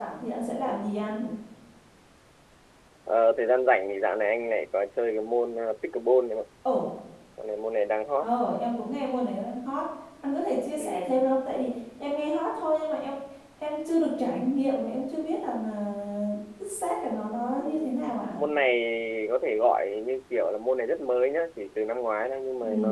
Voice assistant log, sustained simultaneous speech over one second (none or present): none